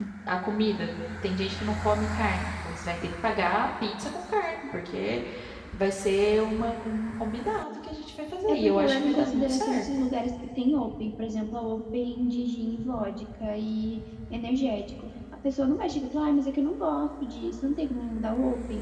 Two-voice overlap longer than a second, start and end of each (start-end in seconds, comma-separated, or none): 8.5-9.8